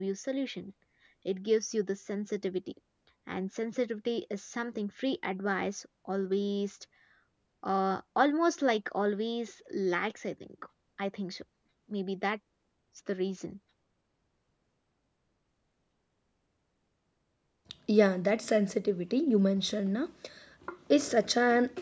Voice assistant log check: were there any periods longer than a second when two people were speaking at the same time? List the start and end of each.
none

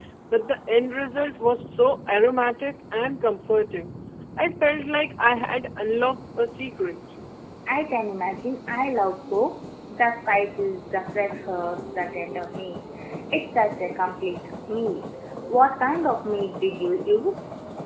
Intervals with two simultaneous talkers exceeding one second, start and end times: none

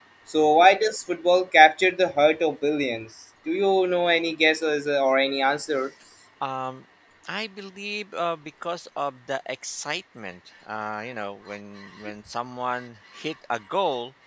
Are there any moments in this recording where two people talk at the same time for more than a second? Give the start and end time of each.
none

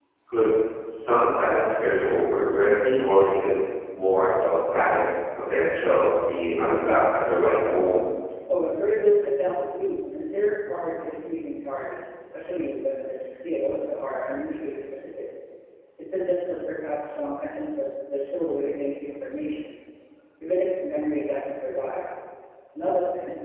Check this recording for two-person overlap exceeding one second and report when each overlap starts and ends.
none

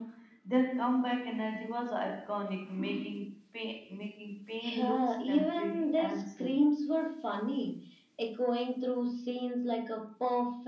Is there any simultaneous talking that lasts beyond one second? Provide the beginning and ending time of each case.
4.7-6.7

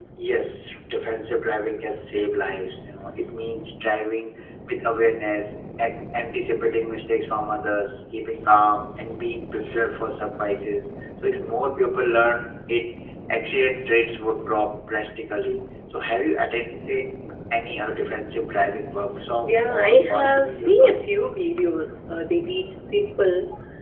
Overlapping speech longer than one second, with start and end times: 19.4-21.0

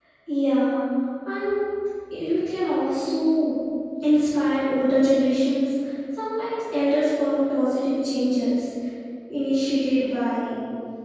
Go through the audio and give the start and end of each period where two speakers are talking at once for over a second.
none

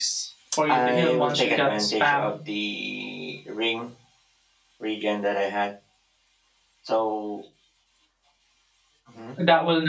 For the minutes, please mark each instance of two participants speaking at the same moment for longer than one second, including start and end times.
0.7-2.4

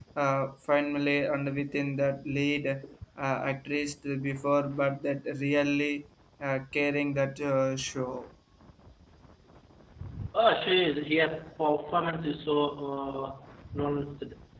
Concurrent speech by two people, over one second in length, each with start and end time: none

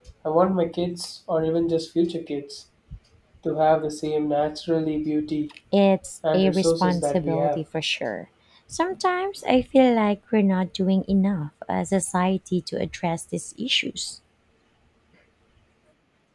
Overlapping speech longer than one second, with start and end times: 6.3-7.6

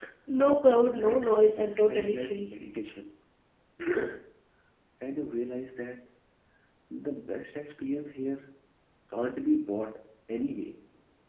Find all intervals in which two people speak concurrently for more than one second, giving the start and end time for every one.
0.9-2.5

